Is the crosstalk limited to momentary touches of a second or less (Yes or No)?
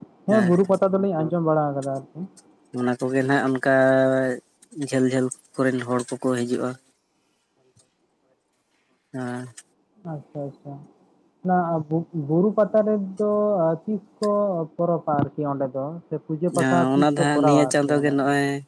No